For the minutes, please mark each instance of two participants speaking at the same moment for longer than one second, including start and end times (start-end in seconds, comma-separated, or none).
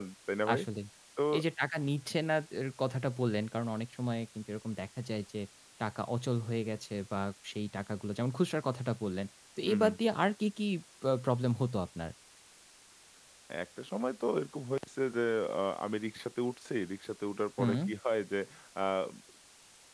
none